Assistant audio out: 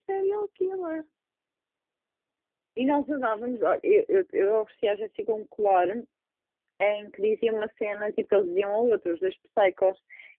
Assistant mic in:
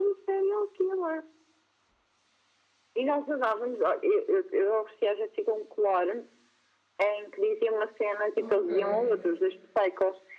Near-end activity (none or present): present